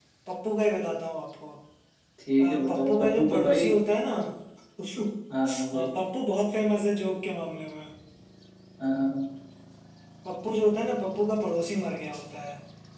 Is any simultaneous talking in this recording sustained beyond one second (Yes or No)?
Yes